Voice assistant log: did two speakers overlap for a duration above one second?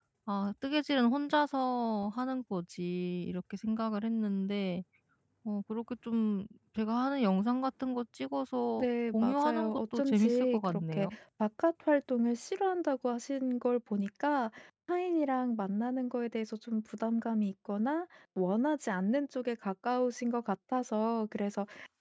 Yes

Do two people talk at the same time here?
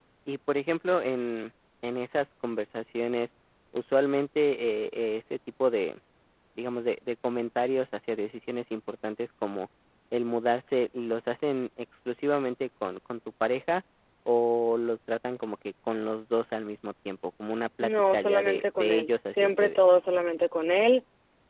Yes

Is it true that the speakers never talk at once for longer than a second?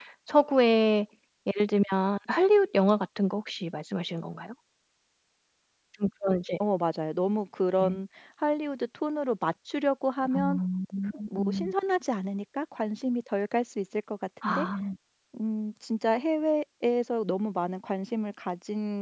Yes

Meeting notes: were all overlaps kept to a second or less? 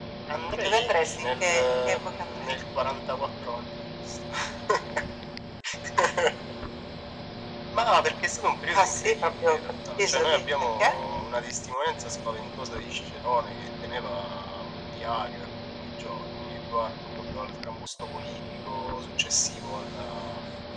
No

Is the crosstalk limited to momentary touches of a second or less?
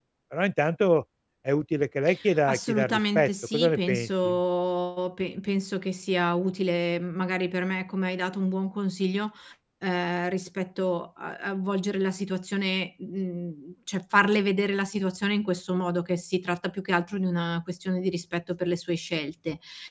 No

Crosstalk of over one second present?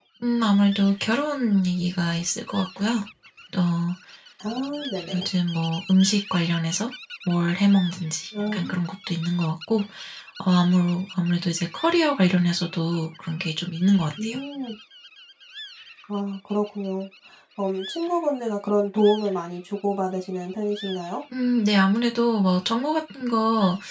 No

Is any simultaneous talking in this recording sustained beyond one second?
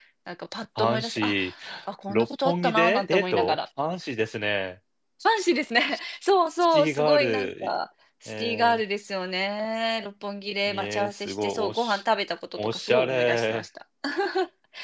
Yes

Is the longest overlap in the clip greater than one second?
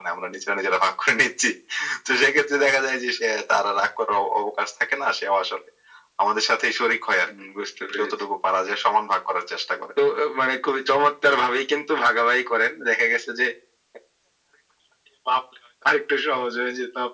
No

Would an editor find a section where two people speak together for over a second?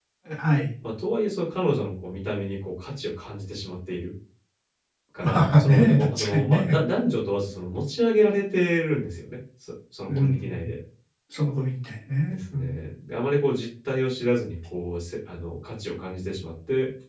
Yes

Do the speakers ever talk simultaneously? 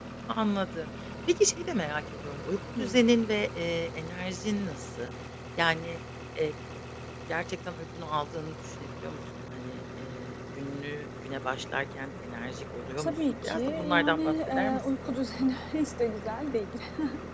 Yes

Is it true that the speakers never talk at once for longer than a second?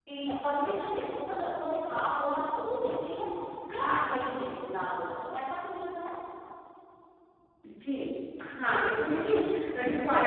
Yes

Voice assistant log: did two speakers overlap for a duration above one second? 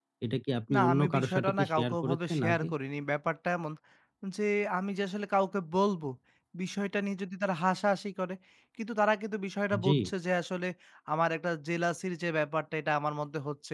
Yes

